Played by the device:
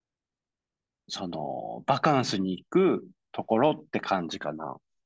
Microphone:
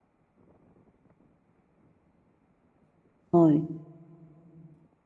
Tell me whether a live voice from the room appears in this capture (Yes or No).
Yes